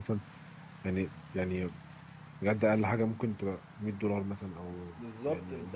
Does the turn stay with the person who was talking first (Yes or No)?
No